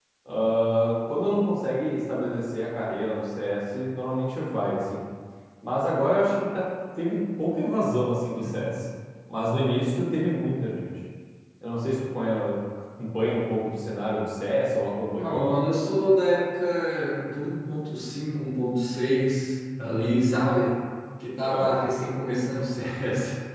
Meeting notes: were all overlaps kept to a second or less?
Yes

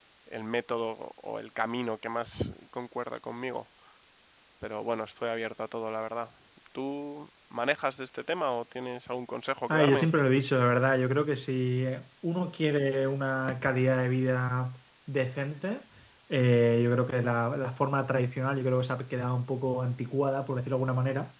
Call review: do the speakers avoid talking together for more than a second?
Yes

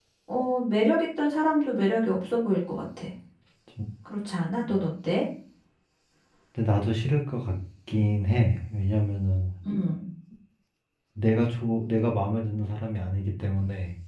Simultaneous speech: No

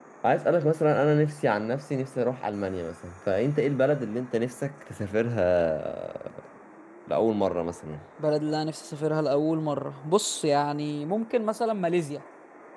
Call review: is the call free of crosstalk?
Yes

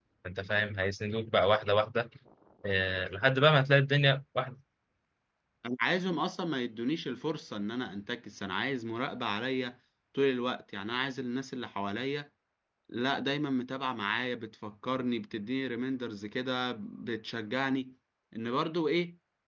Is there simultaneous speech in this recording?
No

